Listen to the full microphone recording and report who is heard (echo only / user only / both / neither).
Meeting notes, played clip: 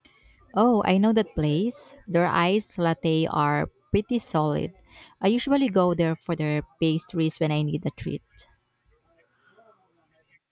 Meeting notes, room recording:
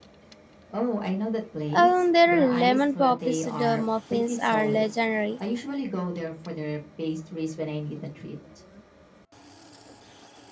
both